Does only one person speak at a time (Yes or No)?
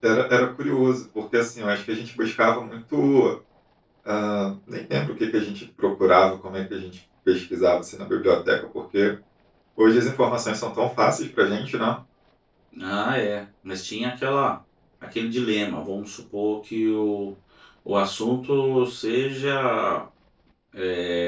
Yes